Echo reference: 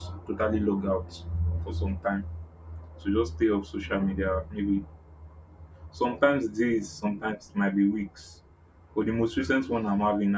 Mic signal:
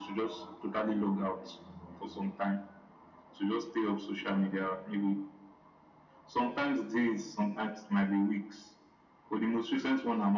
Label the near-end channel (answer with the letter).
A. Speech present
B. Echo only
B